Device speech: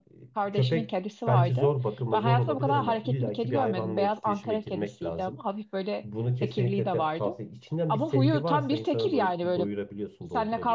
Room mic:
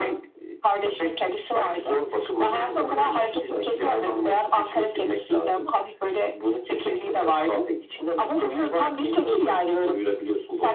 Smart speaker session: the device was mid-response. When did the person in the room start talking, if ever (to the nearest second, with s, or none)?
none